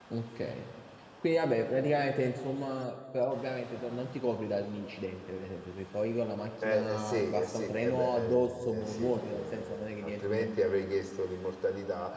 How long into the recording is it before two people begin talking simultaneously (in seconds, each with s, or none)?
6.6 s